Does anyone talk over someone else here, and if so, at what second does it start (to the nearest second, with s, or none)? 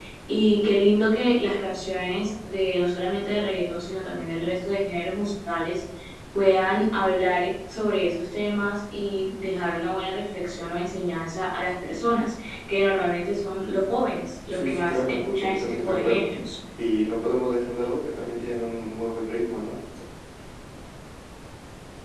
15 s